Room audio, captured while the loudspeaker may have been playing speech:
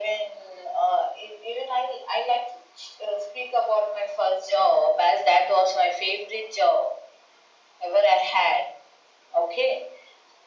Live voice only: none

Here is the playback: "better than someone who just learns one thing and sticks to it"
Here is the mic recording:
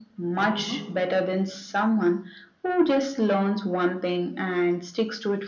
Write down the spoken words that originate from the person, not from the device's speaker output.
And you know,

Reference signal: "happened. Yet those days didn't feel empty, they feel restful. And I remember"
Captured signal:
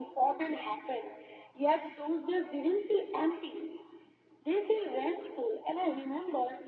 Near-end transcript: none

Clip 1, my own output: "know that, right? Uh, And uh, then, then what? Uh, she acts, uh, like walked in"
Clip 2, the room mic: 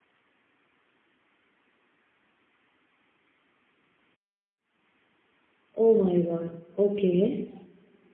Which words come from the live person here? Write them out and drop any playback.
Oh my god. Okay.

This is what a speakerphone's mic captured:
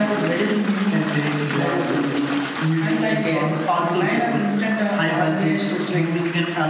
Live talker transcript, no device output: none

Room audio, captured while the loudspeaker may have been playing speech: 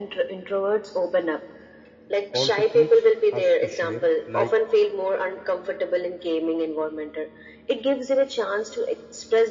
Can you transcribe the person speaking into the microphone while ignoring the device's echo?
also teach us to share like

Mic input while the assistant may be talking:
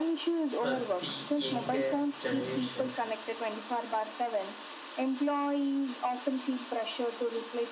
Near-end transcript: at the younger generation?

